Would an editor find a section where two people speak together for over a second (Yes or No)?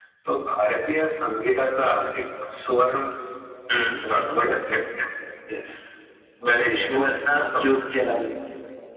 No